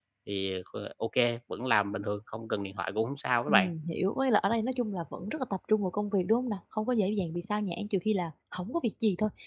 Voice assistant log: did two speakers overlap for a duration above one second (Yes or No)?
No